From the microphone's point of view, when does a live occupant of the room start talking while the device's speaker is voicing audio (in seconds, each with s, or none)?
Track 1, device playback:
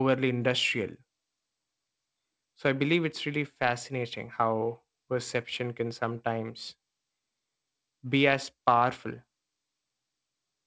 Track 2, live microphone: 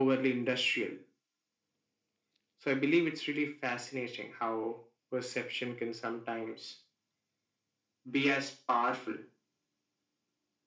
none